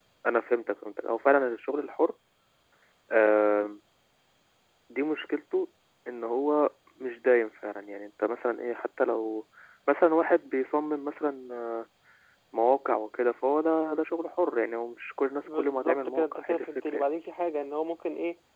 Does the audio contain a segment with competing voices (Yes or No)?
Yes